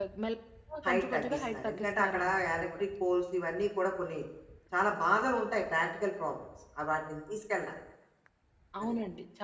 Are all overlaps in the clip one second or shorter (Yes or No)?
No